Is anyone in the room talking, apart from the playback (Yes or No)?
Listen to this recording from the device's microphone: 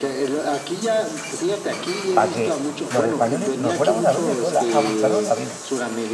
Yes